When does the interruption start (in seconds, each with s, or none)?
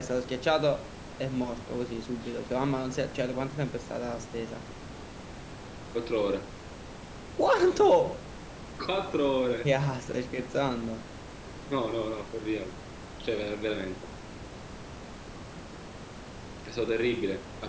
none